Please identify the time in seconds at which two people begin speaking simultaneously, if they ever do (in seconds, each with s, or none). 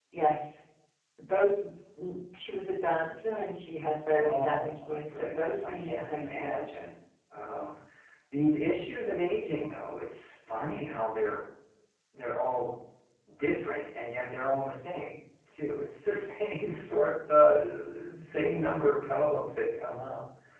4.2 s